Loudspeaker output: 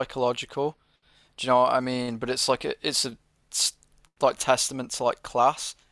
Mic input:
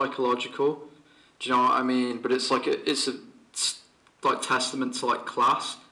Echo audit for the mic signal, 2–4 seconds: echo only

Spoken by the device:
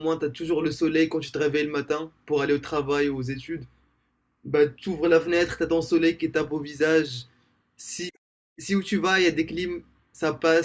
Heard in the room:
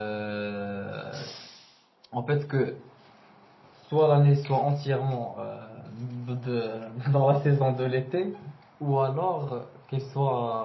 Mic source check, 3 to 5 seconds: user only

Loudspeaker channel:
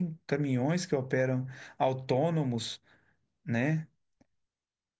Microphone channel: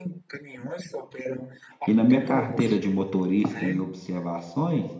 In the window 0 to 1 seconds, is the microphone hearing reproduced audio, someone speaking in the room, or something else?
echo only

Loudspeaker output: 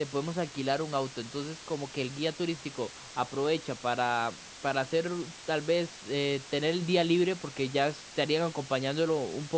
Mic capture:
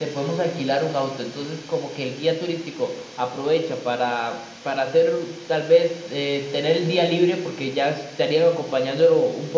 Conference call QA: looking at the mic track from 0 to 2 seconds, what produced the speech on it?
echo only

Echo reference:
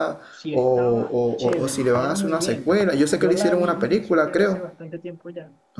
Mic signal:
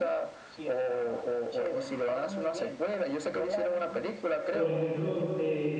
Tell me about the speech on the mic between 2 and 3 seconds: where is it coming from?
echo only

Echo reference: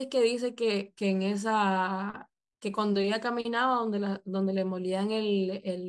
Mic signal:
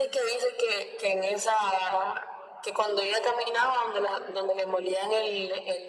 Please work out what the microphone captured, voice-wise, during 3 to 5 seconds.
echo only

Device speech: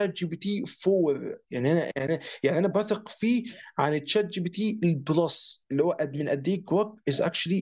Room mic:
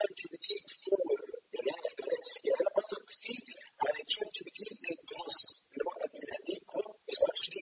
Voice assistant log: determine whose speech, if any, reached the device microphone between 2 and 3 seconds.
echo only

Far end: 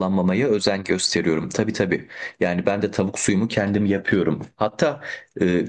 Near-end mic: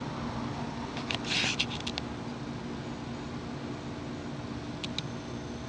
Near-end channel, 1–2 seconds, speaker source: neither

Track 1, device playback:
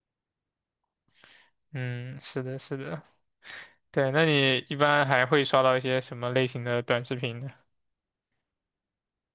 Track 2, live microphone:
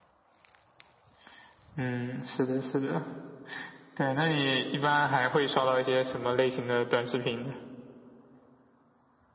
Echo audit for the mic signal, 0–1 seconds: neither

